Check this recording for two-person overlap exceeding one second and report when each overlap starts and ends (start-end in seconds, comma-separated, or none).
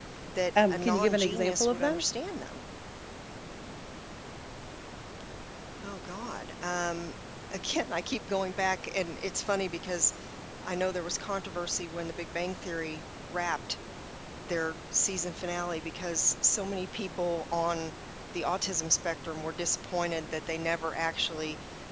0.7-2.0